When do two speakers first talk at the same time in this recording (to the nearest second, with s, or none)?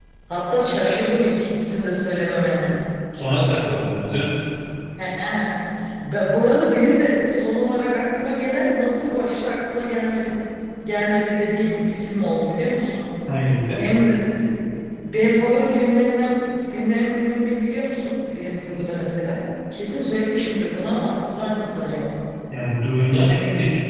none